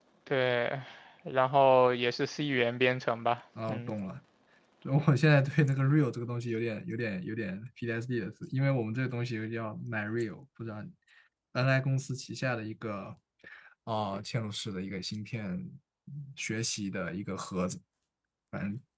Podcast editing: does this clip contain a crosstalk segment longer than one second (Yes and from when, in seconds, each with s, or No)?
No